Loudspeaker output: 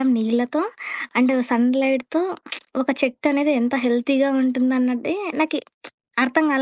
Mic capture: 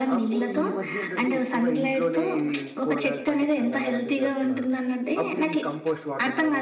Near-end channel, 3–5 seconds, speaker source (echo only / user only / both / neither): both